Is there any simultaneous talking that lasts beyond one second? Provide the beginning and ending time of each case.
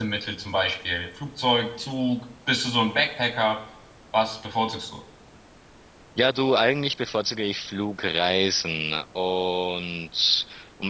none

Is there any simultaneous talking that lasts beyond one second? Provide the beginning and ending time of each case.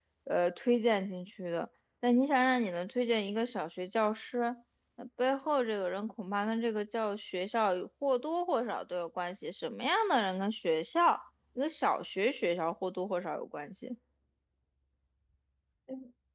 none

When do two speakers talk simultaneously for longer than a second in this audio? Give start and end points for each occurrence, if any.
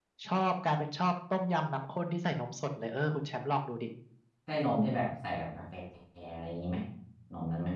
none

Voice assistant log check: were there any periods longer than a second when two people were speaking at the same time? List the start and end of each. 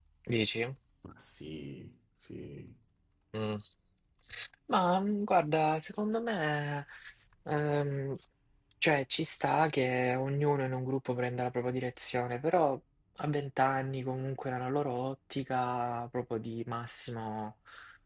none

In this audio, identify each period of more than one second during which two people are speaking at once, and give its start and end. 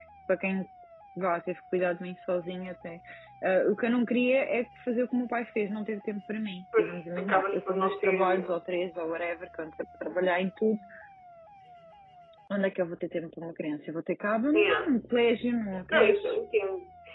6.8-8.5

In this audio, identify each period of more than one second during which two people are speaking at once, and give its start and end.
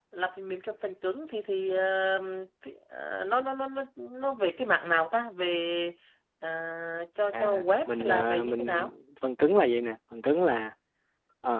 7.3-8.9

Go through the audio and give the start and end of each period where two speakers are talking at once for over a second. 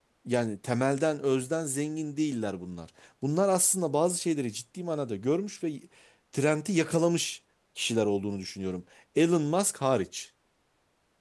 none

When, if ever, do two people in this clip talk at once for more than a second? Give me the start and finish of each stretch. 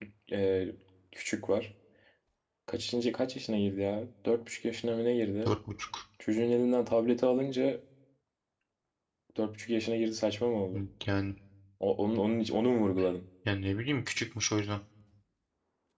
none

